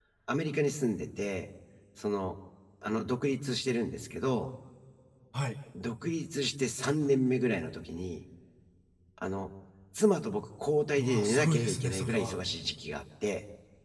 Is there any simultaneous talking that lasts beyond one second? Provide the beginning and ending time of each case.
11.0-12.4

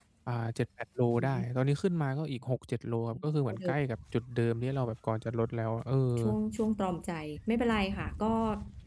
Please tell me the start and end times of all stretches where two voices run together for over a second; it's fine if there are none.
none

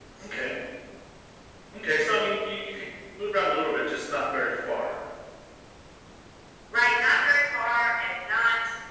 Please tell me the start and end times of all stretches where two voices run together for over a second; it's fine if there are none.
none

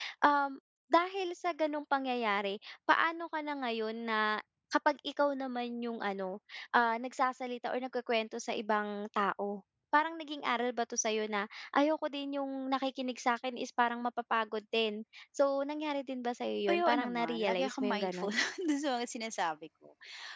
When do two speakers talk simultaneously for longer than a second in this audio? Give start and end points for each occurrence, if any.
16.7-18.3

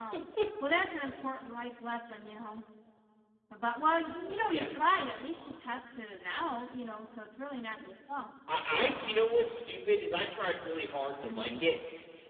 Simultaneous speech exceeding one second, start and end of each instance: none

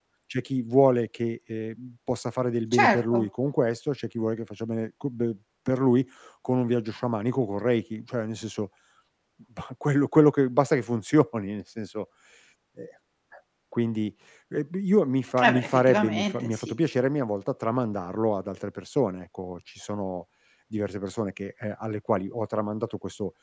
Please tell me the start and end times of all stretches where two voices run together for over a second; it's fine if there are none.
15.4-16.8

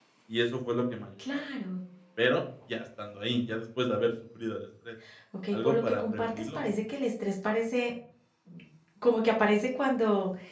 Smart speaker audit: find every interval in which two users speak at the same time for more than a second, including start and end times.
5.5-6.7

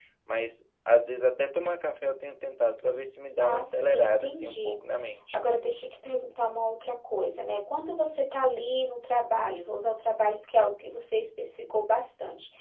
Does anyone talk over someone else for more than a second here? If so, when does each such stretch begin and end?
3.4-4.8

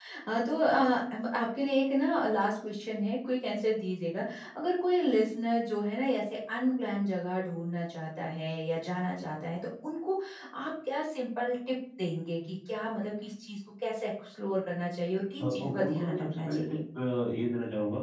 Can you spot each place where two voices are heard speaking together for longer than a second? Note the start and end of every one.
15.4-16.8

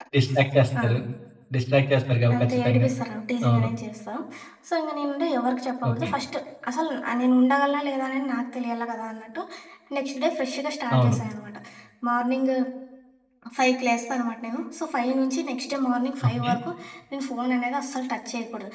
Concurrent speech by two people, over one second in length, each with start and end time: none

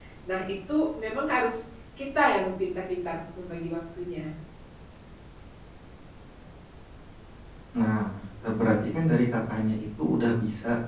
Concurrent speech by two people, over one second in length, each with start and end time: none

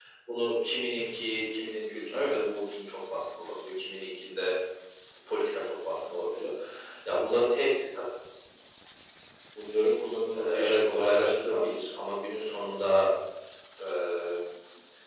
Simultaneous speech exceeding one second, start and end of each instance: 10.3-11.8

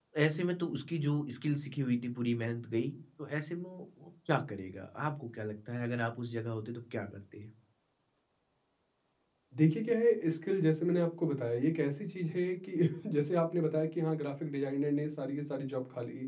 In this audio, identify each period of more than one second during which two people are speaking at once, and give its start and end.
none

